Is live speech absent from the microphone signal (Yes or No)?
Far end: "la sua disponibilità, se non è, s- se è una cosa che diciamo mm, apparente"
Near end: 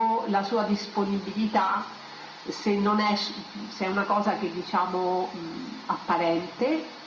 Yes